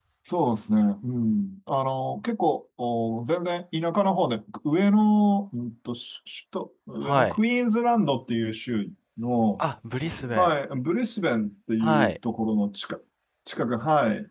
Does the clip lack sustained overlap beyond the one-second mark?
Yes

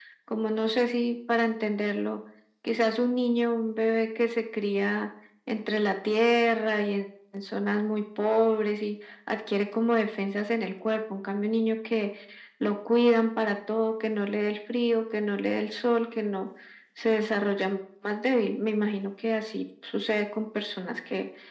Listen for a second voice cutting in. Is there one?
No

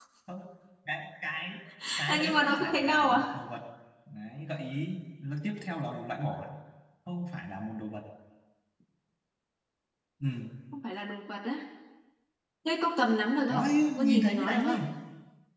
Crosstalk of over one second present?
Yes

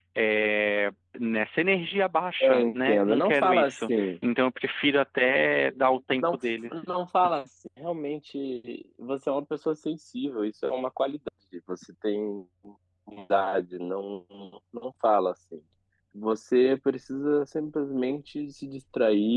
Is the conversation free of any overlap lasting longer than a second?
No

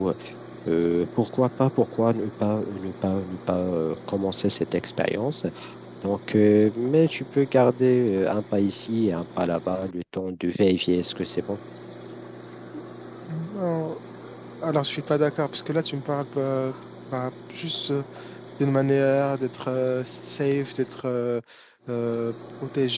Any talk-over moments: No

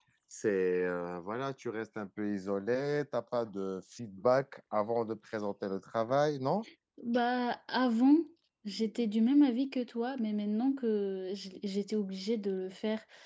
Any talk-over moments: No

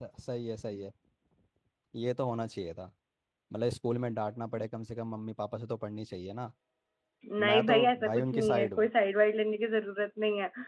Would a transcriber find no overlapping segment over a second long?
No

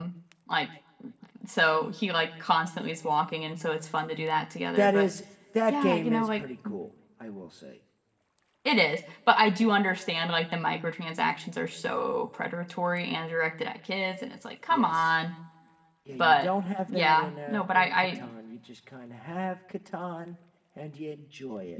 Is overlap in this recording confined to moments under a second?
No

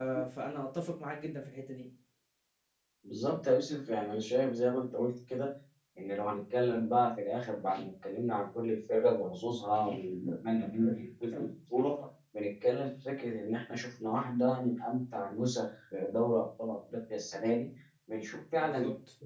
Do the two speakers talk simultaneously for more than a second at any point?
No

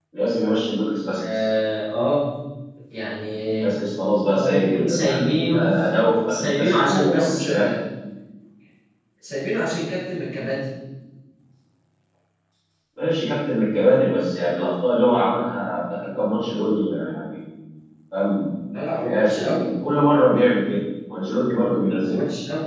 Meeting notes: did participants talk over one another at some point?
Yes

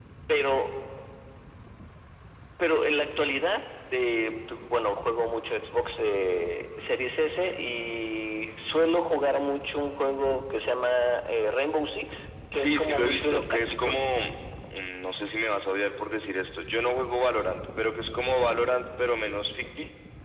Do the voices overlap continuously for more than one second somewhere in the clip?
Yes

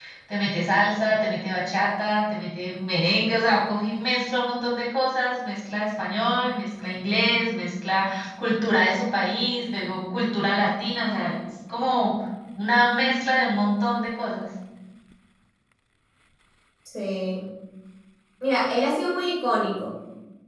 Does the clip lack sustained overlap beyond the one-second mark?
Yes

